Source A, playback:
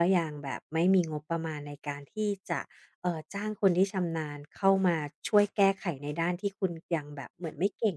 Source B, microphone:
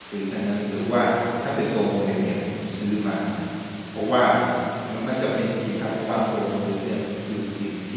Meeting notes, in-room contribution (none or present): present